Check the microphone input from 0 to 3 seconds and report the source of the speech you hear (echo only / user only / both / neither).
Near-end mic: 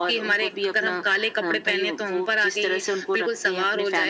echo only